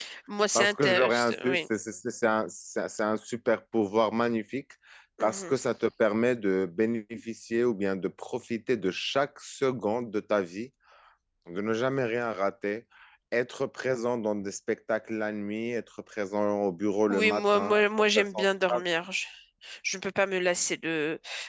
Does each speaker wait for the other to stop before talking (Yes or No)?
No